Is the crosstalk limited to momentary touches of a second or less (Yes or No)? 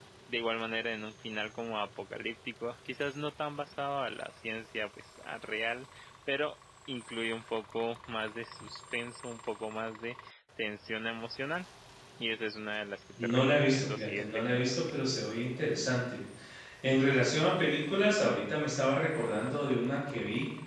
No